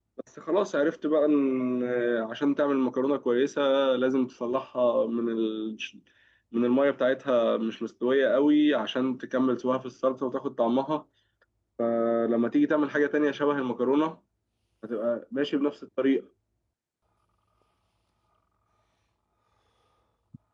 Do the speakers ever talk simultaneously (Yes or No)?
No